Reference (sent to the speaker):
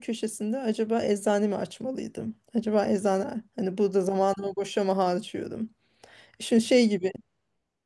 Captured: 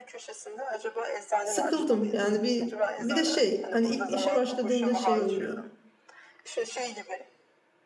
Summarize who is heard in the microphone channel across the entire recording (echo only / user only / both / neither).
both